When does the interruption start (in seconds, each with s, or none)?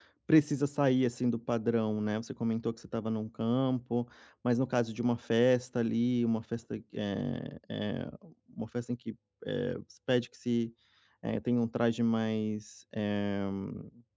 none